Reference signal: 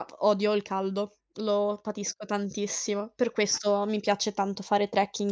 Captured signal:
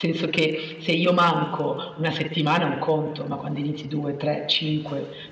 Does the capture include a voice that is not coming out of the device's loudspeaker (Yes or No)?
Yes